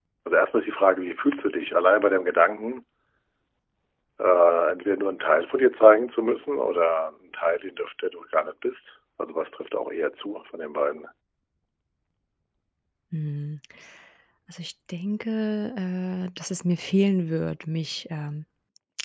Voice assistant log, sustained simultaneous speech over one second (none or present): none